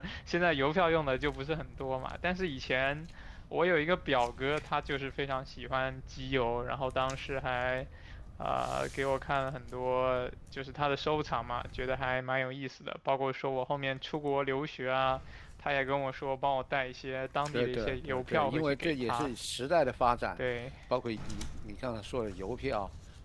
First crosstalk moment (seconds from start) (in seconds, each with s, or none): 17.5 s